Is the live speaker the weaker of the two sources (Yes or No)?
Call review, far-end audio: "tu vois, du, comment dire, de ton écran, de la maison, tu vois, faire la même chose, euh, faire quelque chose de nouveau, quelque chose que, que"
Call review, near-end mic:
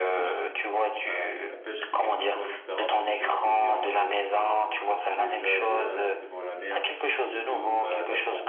Yes